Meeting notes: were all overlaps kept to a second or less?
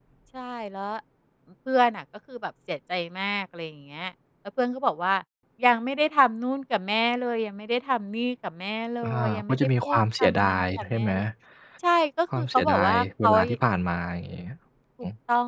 No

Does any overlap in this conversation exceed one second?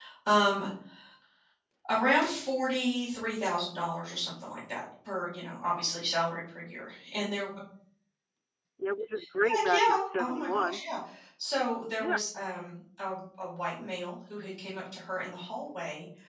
Yes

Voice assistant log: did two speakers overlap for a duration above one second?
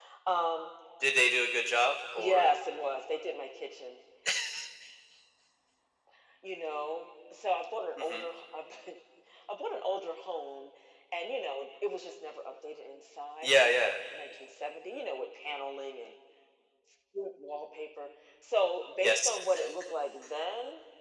No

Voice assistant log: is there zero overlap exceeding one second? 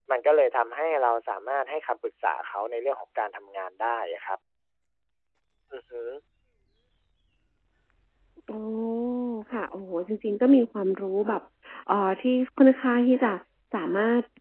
Yes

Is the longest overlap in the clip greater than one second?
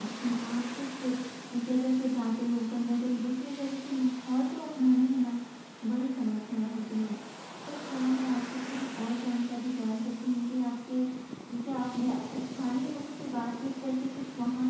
No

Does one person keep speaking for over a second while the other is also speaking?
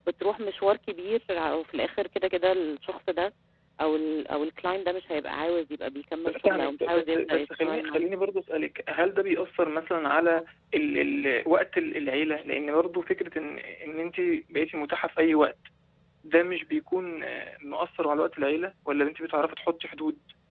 Yes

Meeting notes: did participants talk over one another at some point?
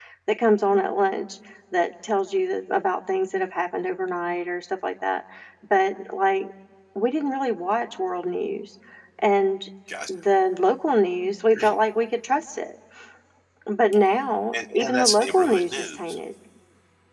Yes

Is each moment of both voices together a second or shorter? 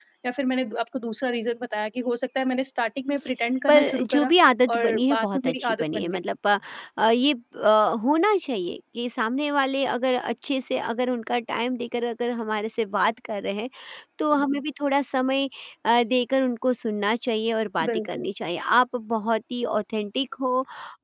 No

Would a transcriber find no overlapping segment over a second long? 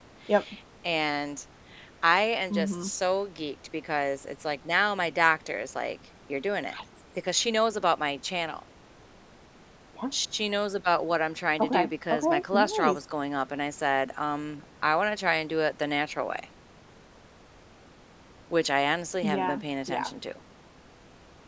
No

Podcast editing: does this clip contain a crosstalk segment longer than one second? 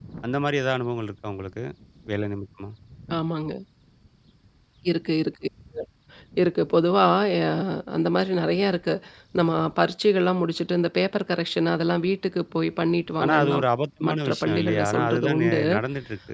Yes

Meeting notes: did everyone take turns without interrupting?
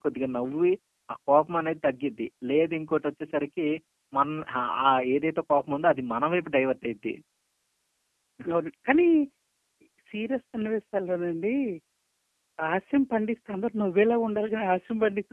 Yes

